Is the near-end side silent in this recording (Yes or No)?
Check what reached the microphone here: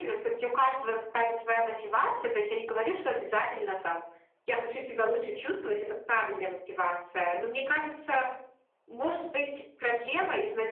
Yes